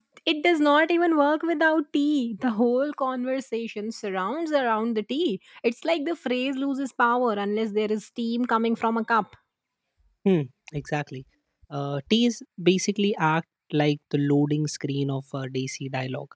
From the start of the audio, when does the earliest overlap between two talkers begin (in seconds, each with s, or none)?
none